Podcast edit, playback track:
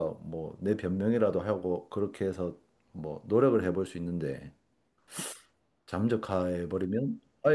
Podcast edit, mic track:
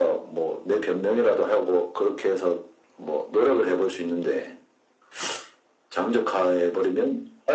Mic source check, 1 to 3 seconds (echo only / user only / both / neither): echo only